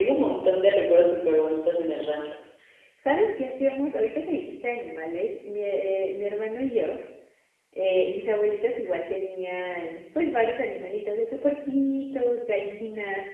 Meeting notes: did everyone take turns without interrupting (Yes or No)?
Yes